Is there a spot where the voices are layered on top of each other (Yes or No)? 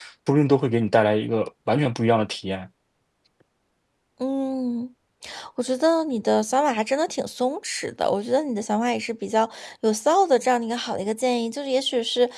No